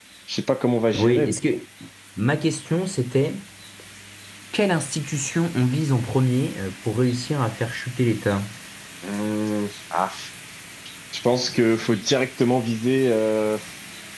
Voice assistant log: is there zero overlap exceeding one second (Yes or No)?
Yes